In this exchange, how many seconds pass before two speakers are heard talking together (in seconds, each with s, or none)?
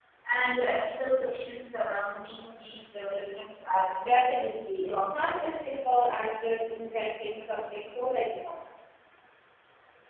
4.0 s